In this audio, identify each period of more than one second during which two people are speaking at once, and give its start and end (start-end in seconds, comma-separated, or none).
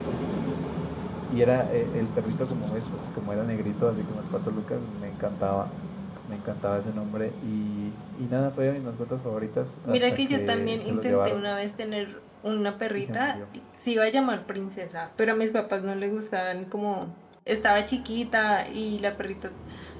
9.9-11.5